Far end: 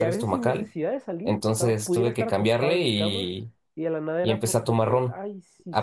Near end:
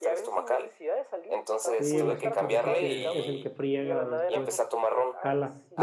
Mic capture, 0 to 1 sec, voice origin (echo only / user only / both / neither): echo only